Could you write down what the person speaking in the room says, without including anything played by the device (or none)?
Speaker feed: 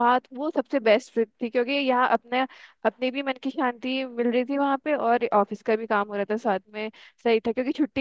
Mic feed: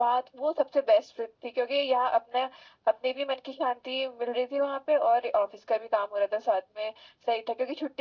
none